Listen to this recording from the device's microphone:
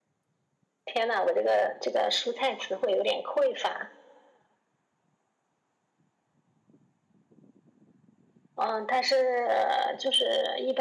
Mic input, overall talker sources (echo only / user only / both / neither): echo only